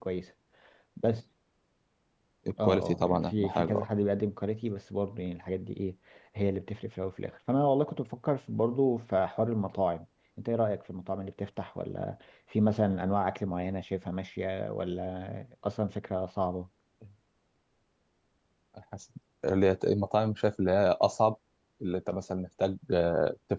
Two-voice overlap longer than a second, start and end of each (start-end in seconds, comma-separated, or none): 2.6-3.9